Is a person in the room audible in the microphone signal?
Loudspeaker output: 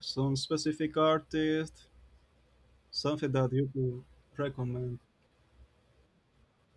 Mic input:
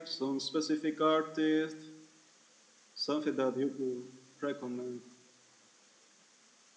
No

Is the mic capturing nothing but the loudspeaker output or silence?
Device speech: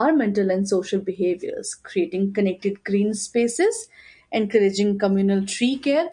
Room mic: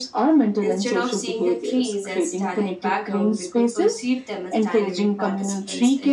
No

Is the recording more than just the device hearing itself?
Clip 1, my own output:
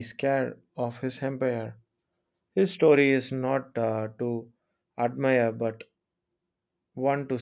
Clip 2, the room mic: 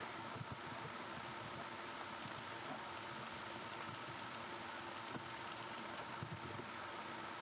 No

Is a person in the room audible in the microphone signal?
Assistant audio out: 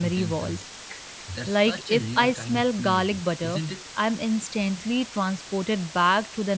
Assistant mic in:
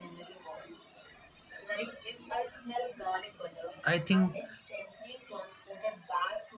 Yes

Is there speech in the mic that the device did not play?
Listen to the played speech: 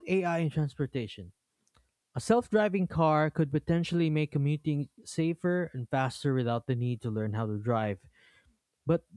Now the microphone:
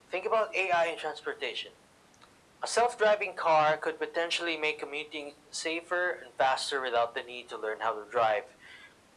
No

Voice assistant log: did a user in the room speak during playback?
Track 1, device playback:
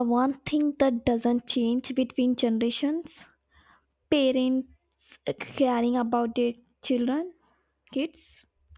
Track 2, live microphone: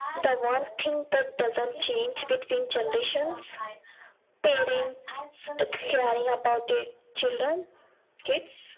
Yes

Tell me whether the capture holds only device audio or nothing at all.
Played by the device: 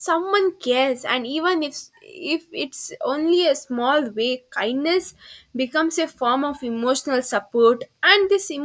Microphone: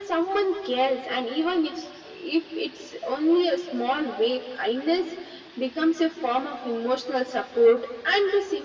Yes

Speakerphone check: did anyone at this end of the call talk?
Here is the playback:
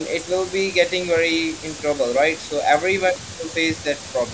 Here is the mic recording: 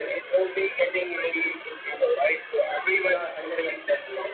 Yes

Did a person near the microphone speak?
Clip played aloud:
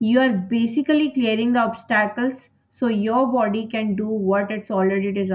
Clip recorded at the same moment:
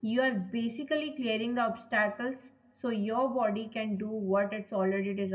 No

